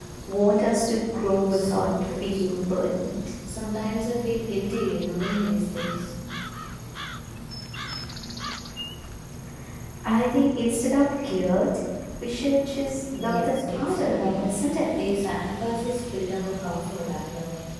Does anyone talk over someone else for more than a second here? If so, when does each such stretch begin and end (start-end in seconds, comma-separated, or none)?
1.5-2.9, 13.2-14.5